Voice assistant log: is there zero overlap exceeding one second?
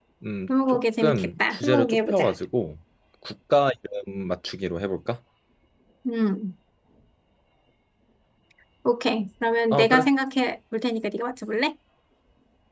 No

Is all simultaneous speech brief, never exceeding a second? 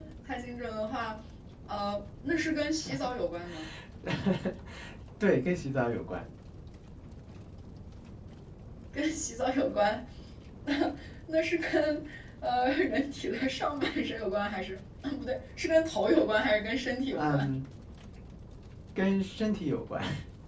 Yes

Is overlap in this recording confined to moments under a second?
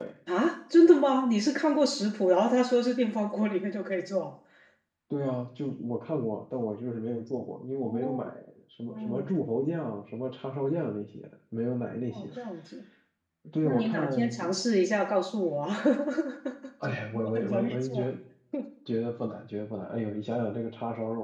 No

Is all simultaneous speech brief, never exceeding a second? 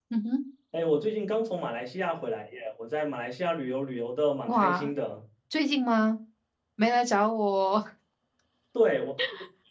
Yes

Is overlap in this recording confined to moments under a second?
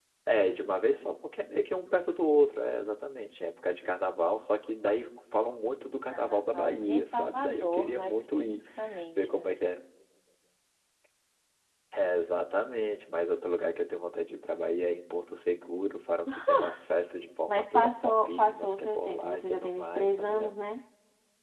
No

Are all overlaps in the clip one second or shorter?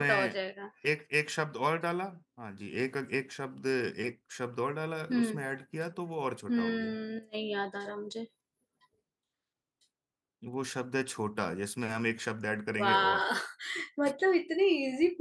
Yes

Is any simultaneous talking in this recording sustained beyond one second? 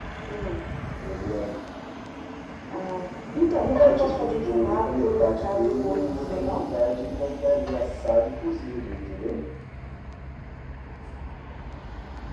Yes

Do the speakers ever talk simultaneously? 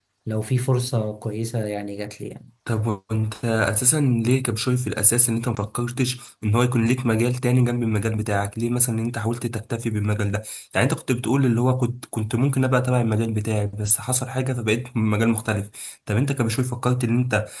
No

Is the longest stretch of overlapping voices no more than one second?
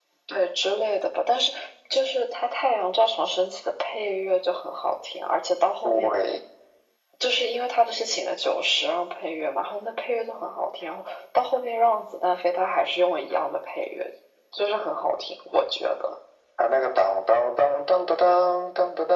Yes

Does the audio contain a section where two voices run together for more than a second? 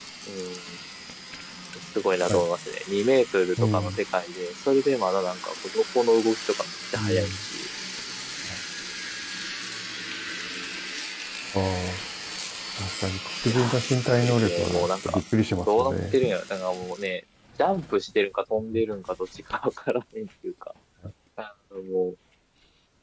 Yes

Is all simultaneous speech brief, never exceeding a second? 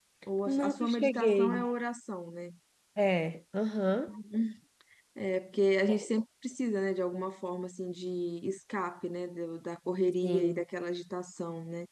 No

